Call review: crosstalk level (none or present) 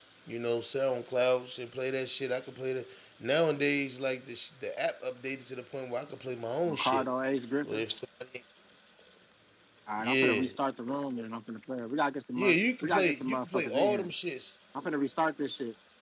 present